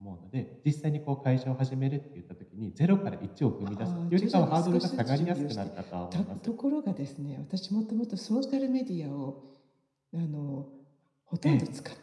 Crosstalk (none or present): present